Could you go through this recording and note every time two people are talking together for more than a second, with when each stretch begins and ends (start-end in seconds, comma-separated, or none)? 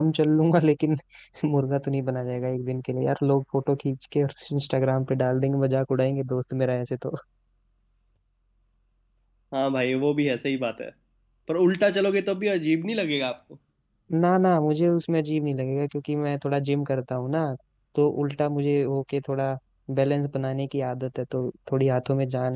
none